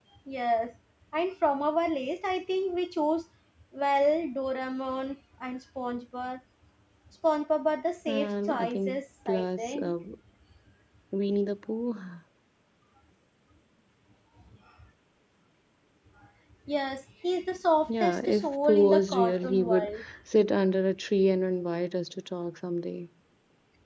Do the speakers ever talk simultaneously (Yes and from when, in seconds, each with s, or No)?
Yes, from 8.1 s